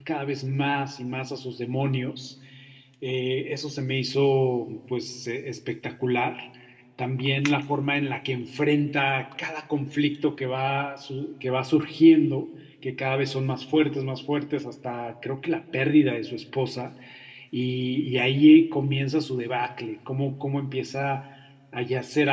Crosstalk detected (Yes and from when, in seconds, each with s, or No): No